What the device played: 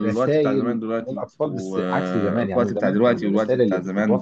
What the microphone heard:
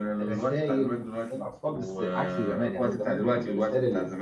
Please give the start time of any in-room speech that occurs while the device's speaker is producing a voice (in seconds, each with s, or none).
none